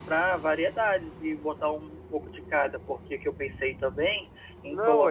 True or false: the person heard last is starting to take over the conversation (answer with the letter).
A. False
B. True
B